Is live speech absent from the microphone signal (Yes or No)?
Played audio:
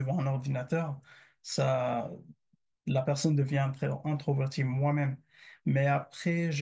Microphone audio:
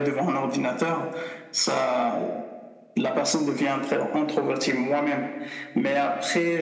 Yes